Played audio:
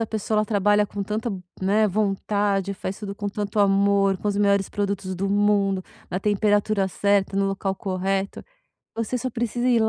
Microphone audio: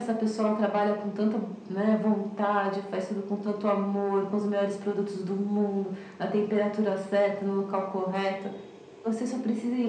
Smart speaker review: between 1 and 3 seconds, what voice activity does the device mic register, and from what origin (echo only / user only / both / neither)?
echo only